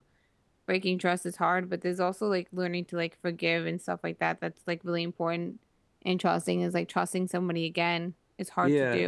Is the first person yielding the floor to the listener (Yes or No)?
Yes